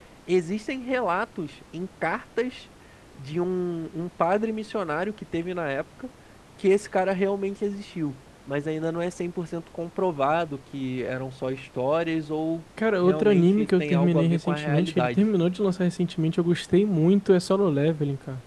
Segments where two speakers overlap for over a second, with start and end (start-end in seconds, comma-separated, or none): 13.0-15.2